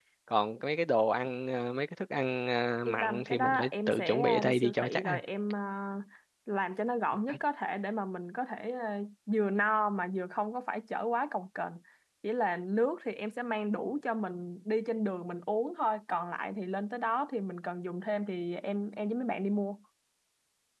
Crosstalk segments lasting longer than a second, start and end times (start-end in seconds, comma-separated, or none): 2.9-5.2